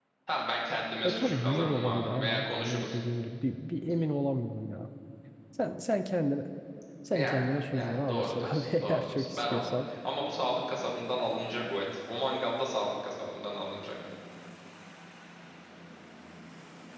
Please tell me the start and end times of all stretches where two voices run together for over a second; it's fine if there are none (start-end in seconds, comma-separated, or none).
1.0-2.9, 7.1-9.8